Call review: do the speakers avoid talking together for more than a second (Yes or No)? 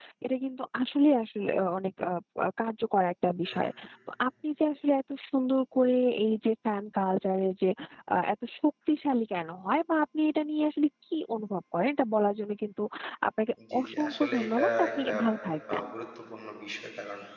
No